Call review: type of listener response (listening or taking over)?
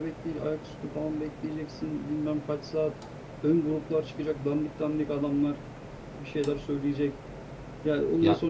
listening